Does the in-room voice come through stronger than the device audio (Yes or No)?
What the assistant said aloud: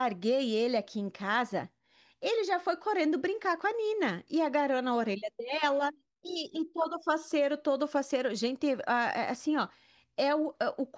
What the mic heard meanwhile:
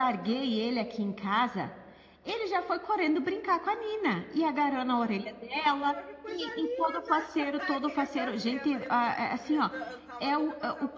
No